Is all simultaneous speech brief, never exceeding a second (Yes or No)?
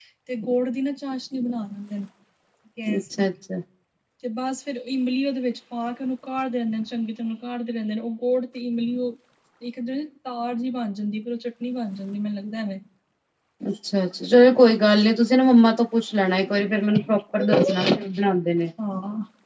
Yes